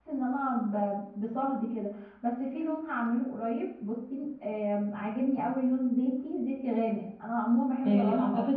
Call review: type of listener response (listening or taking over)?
taking over